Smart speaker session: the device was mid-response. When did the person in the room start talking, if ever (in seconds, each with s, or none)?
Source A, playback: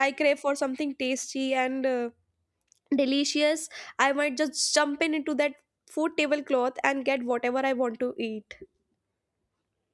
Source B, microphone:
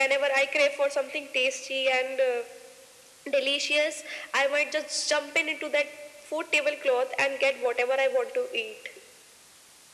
none